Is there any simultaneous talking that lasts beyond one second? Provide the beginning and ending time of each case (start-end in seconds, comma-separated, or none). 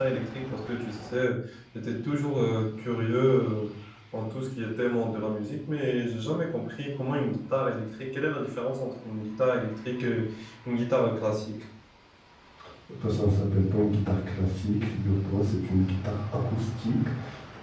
none